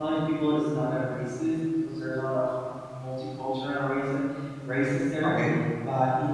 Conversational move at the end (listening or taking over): listening